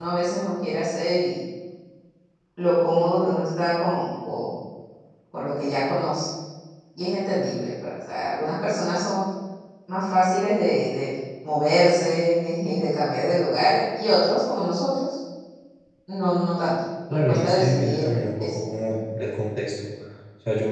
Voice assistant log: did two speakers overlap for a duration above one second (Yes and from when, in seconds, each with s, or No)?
Yes, from 17.1 s